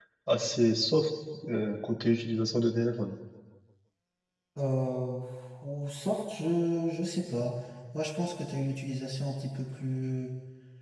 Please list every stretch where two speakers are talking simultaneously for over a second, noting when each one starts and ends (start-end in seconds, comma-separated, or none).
none